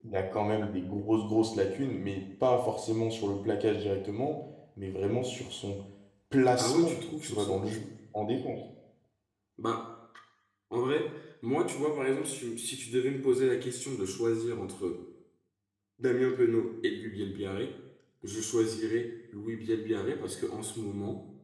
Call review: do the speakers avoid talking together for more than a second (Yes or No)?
No